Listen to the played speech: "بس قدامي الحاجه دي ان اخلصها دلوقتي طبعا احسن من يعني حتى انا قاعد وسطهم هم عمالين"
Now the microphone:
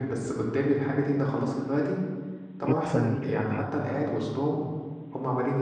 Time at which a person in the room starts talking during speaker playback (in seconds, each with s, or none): 2.6 s